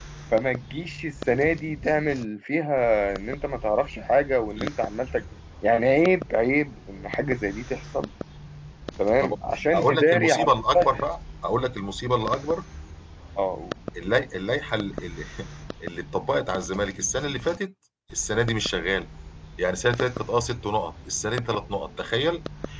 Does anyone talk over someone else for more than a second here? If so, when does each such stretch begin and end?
9.7-11.1

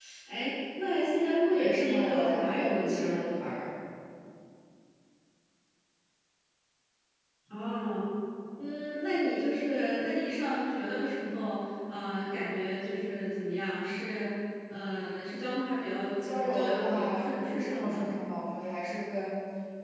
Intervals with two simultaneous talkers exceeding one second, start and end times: 1.5-3.5, 16.2-18.0

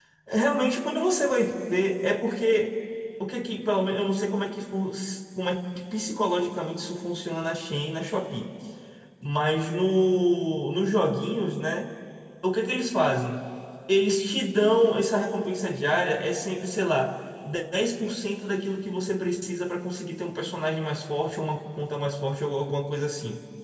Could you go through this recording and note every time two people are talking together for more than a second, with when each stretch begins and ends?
none

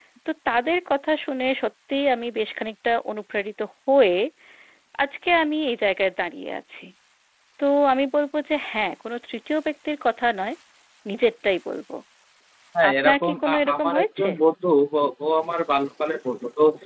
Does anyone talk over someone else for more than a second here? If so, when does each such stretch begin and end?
12.9-14.3

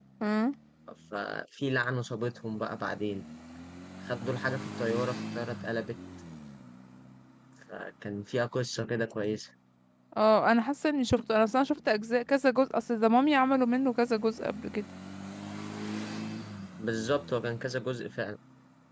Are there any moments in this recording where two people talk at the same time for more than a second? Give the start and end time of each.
none

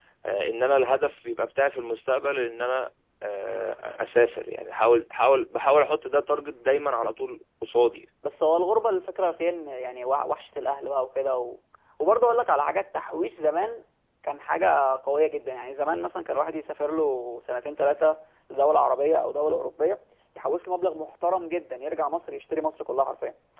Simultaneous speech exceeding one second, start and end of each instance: none

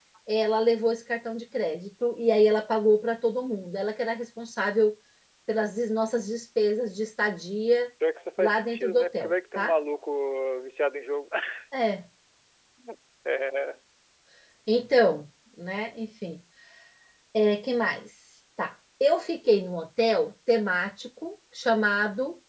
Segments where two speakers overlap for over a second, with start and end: 8.4-9.7

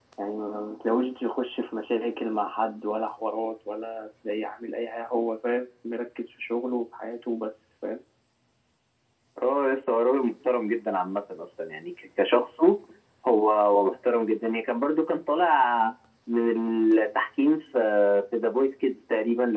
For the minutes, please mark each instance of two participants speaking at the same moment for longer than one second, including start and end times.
none

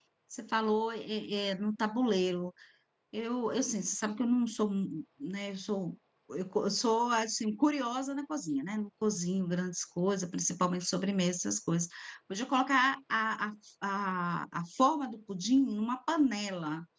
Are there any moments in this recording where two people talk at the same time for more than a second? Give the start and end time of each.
none

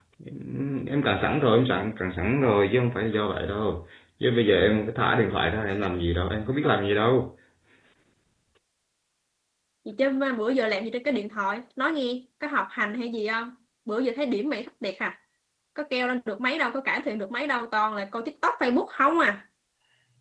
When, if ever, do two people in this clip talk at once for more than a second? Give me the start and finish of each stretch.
none

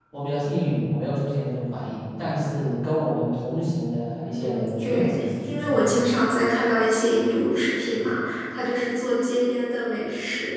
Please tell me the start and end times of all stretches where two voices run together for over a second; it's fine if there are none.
4.2-6.3

